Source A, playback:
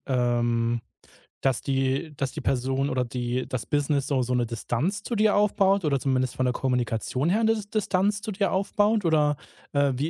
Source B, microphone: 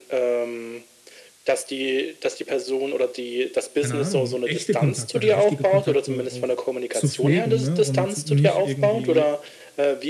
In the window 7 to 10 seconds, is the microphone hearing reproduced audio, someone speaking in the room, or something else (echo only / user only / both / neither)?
both